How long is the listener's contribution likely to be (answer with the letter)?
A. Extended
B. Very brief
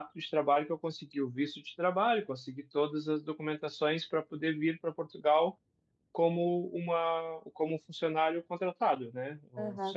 A